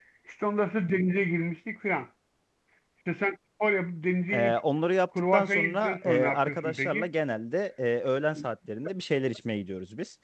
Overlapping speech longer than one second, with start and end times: 5.3-7.1

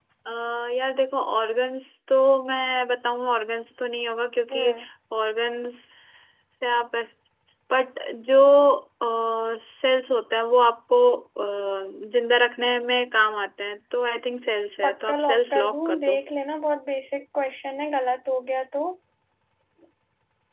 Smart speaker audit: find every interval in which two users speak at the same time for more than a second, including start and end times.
14.8-16.2

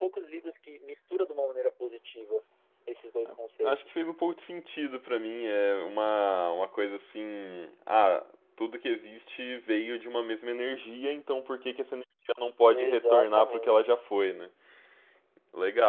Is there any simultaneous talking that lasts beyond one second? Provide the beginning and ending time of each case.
12.7-13.9

